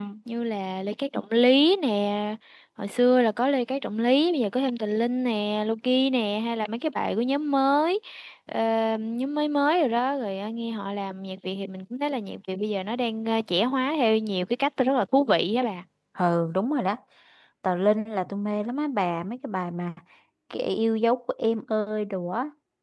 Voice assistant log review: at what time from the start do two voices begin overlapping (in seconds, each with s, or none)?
none